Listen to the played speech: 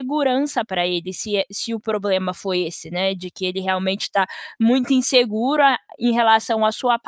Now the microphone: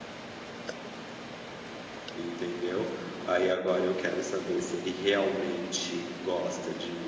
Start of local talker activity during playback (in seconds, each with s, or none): 2.1 s